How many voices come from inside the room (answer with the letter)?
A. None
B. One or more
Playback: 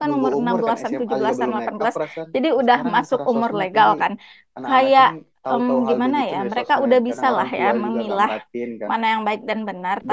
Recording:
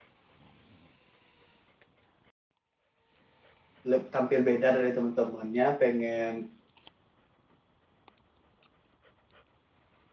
B